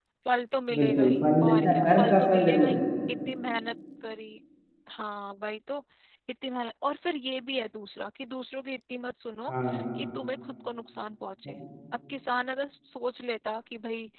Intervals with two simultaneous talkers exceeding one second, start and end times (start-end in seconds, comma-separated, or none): 0.8-2.7